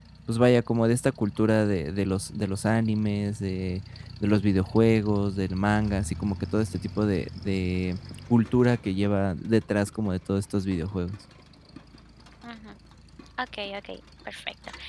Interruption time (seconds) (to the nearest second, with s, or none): none